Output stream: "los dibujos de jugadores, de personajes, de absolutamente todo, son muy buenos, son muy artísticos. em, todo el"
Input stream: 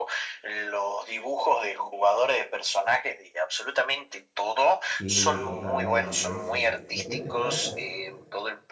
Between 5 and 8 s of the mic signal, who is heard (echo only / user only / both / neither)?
both